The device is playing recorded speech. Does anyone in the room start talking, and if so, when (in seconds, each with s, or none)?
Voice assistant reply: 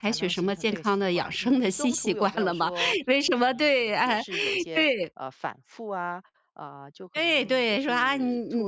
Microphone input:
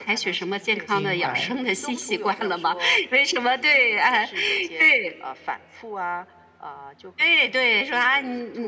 0.9 s